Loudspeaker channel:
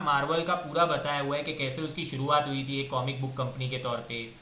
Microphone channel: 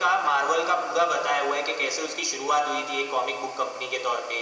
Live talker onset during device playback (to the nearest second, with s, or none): none